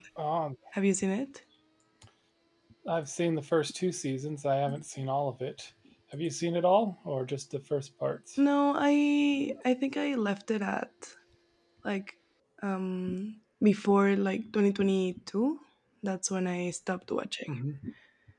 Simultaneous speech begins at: none

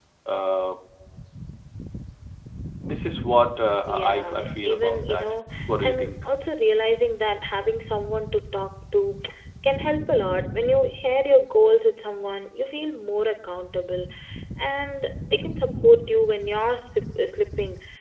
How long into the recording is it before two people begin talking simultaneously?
3.9 s

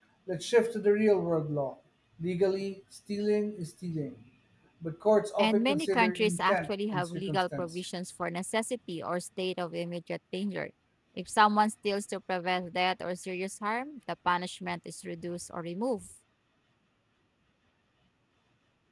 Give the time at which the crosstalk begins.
5.4 s

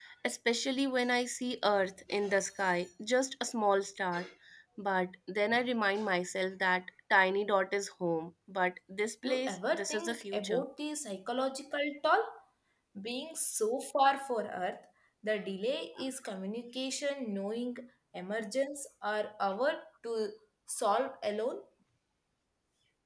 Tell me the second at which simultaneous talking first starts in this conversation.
9.2 s

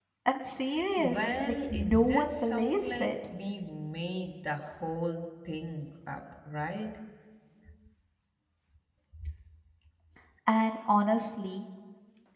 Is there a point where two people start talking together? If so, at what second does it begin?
1.0 s

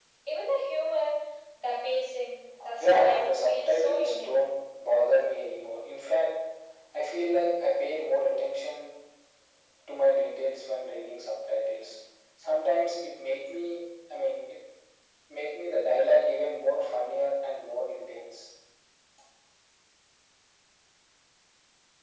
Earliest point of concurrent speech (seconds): 2.6 s

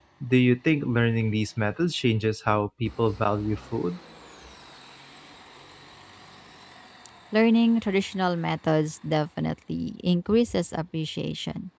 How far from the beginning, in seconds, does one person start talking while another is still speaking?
none

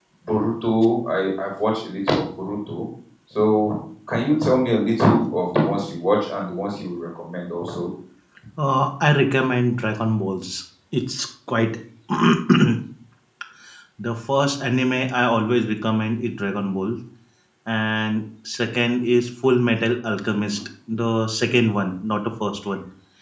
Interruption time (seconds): none

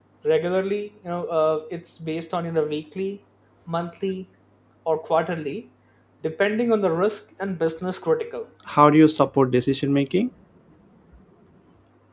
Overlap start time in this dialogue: none

